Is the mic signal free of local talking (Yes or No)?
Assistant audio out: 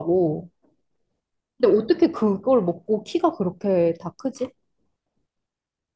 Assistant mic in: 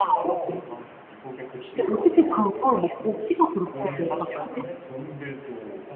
No